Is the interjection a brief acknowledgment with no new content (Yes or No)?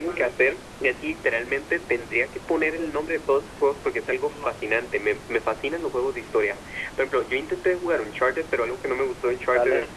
Yes